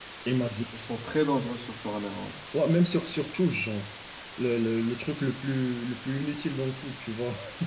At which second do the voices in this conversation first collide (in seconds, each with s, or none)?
none